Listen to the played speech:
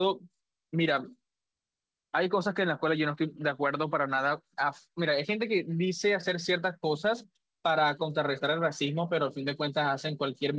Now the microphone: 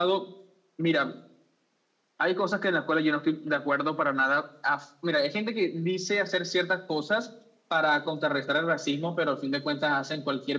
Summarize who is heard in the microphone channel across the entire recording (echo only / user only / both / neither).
echo only